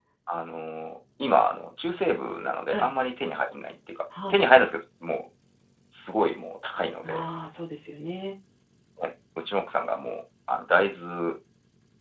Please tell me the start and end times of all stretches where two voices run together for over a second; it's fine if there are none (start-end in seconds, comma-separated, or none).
none